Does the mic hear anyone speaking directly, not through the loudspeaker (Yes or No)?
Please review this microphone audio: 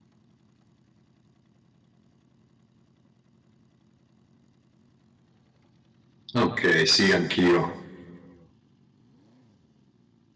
Yes